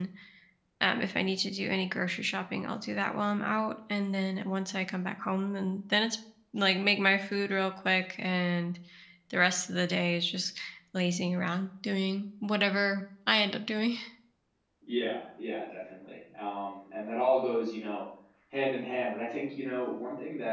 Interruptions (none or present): none